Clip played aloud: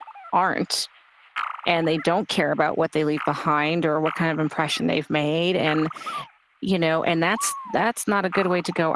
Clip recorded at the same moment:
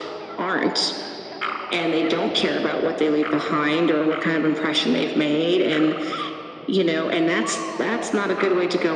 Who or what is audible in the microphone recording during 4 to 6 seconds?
echo only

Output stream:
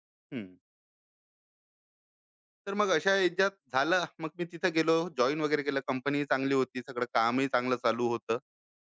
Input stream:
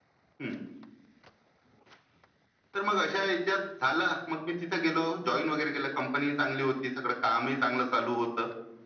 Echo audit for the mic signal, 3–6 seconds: echo only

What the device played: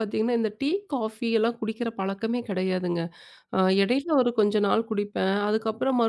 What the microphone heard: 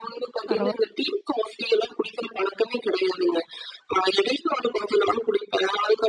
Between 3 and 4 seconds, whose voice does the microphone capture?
echo only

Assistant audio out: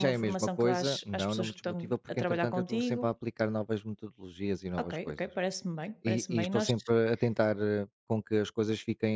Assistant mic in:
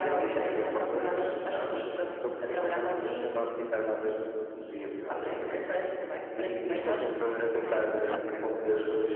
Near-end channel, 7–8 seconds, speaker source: both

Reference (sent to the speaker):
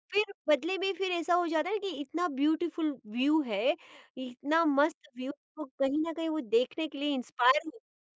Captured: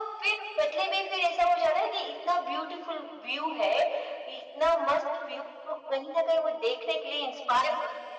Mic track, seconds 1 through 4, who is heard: echo only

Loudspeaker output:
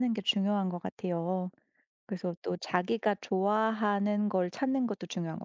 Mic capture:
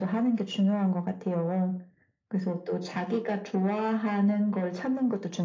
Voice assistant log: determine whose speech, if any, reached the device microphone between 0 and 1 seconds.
echo only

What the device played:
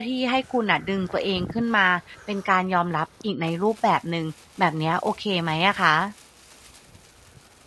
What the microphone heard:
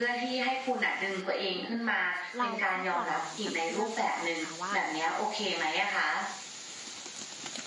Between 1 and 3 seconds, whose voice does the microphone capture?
both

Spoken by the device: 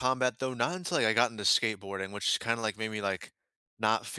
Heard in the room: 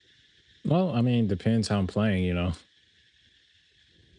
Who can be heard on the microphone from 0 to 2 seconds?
user only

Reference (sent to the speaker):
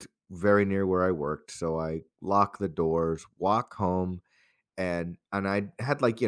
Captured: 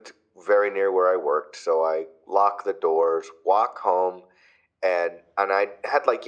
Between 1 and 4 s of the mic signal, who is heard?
echo only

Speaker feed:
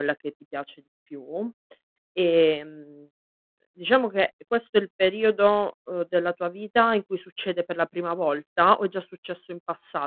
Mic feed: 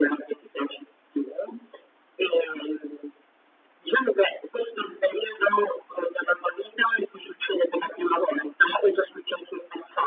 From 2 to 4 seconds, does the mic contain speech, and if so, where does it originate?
echo only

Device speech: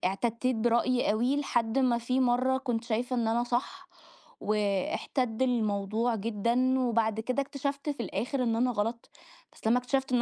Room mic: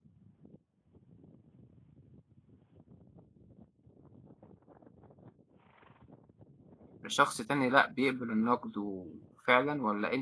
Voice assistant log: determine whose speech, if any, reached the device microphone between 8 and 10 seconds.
user only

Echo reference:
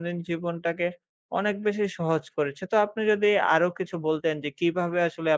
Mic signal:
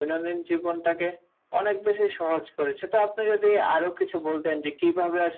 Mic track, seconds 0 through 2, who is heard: echo only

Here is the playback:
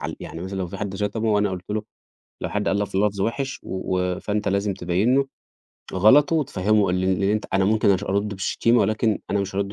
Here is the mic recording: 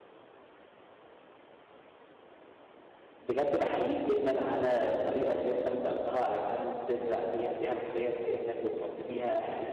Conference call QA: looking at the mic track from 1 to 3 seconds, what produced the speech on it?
neither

